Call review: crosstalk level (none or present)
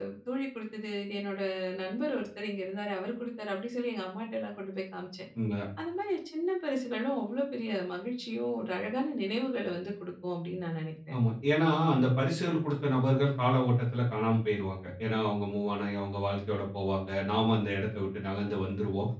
none